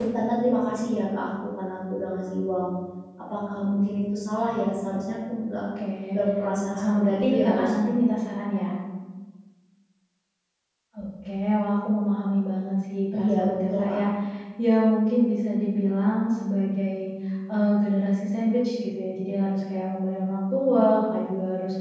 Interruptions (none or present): present